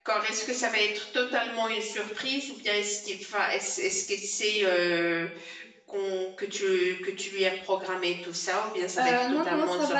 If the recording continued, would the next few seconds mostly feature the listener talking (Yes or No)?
Yes